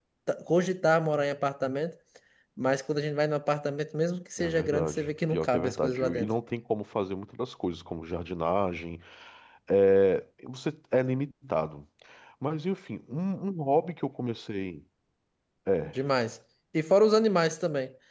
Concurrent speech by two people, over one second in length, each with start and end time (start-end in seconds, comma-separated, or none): 4.4-6.3